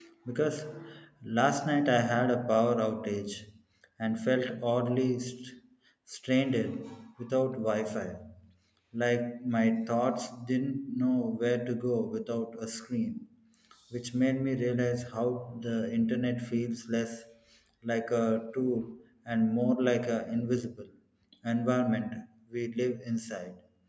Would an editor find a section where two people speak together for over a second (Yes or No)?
No